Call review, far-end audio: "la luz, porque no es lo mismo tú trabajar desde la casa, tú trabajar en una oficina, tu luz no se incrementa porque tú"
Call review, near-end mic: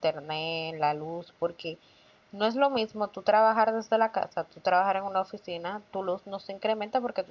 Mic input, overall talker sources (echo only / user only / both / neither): echo only